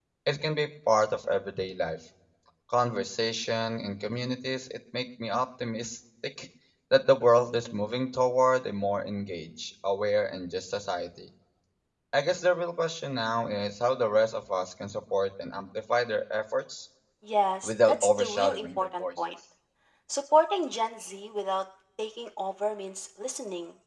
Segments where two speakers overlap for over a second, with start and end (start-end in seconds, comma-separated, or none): 17.6-19.2